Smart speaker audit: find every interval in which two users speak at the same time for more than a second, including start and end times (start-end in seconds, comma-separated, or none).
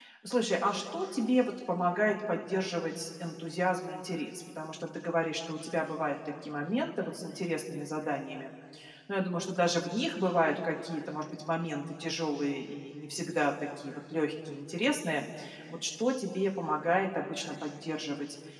none